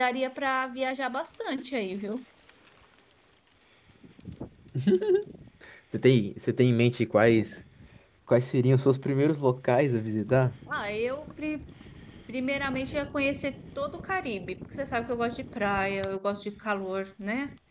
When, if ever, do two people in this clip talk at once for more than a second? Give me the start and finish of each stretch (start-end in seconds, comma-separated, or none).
none